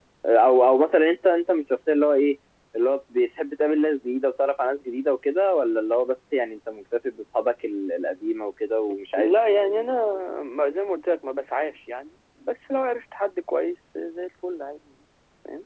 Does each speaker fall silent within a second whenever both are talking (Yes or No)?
Yes